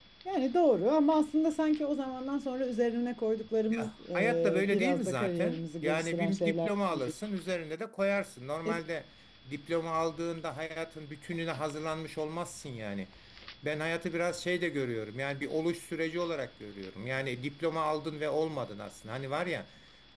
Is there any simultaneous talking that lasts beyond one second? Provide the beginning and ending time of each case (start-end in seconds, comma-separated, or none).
3.7-7.1